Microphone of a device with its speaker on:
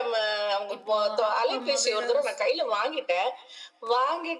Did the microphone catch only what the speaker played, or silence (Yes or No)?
No